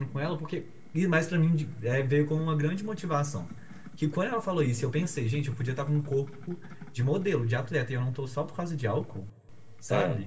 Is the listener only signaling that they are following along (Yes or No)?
No